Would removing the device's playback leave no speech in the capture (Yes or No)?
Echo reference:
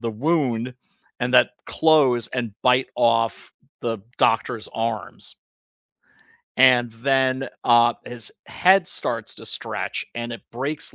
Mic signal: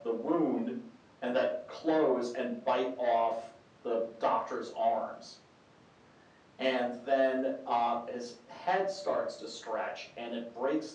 Yes